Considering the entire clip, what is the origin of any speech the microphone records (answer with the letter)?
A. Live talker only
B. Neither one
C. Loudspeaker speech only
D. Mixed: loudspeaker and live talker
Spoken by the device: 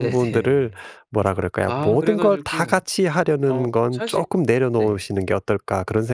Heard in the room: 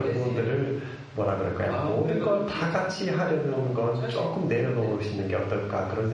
C